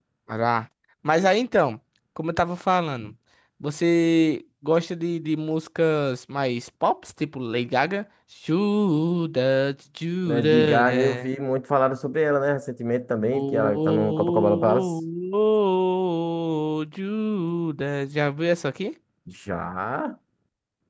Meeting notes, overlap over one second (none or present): present